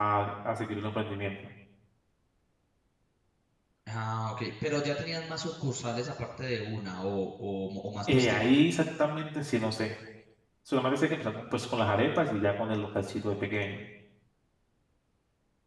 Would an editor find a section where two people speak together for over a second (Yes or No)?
No